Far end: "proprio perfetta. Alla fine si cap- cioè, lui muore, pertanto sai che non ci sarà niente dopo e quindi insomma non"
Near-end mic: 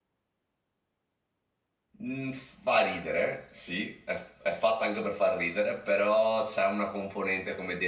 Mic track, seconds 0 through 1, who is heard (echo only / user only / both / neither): neither